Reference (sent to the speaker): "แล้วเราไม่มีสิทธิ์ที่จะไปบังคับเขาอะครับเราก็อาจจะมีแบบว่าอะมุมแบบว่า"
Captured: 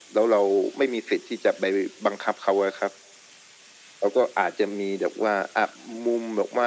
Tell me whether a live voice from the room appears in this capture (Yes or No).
No